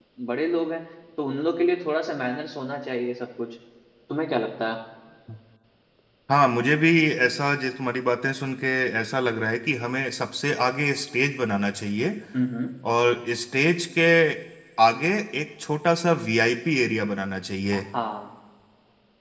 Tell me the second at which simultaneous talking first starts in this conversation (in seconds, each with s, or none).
none